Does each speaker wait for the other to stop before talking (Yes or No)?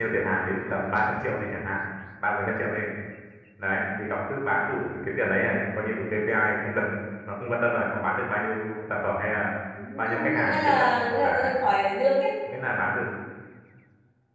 No